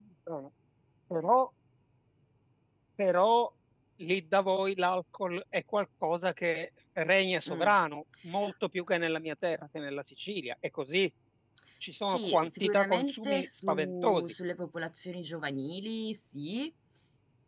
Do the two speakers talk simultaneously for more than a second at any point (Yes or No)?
Yes